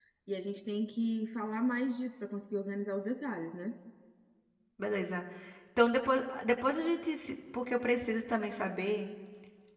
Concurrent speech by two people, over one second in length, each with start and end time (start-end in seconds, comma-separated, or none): none